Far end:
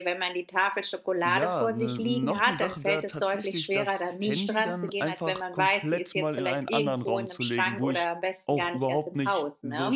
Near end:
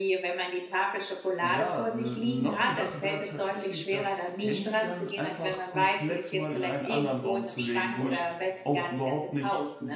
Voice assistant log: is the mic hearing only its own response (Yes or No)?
Yes